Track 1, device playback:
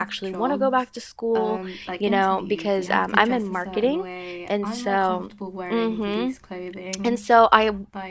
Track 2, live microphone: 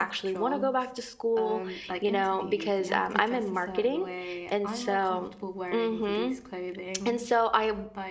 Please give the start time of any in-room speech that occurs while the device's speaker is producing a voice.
none

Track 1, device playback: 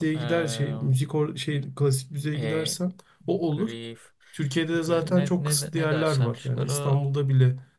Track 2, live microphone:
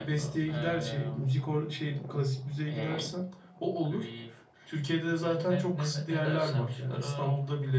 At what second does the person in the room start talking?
none

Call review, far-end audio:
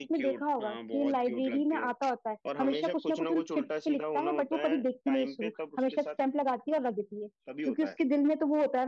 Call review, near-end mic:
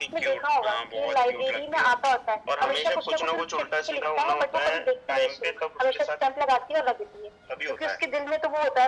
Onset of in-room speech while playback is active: none

